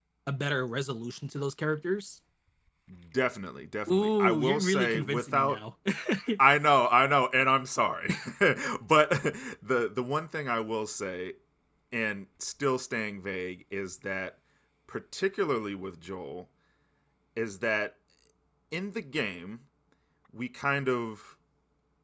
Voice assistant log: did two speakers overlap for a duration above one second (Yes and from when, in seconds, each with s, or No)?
Yes, from 3.9 s